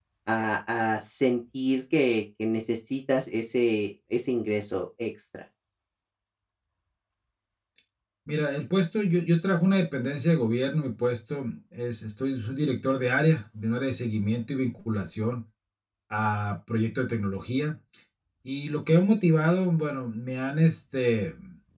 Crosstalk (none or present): none